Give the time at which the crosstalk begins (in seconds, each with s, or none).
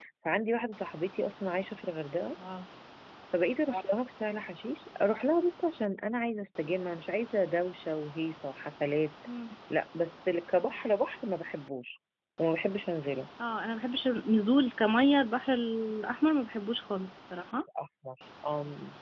none